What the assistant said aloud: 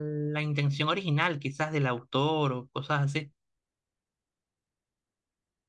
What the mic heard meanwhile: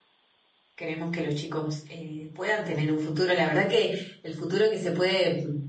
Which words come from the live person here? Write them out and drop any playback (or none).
queremos que los chicos eh, puedan tener un futuro. La verdad que el futuro que se puede